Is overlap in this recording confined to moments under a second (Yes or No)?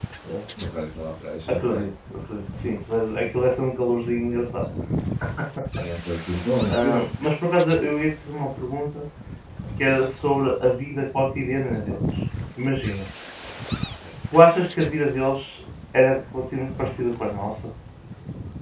Yes